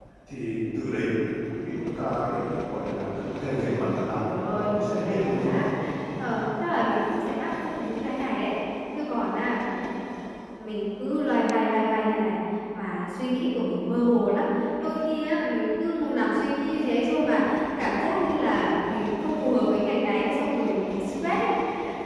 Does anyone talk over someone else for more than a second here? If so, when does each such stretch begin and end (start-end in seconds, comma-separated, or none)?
4.2-5.6